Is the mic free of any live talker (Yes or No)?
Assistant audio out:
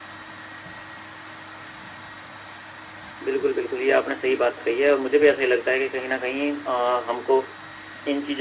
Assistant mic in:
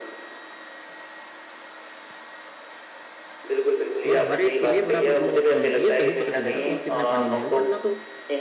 No